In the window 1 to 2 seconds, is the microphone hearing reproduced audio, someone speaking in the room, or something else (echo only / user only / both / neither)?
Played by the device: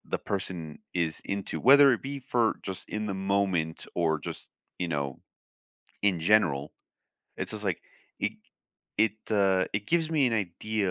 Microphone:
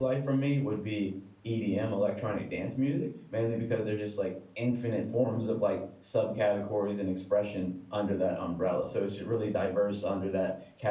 user only